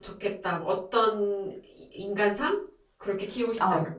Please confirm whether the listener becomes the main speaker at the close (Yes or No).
Yes